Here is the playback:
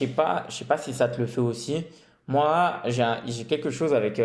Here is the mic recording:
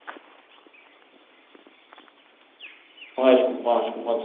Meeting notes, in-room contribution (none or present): present